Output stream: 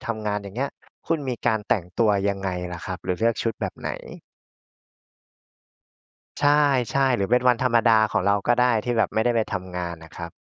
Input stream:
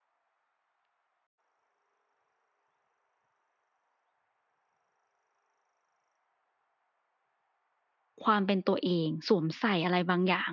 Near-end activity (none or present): present